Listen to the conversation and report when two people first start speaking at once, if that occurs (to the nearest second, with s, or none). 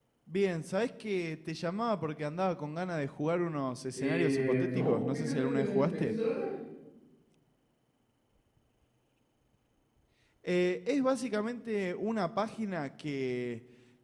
4 s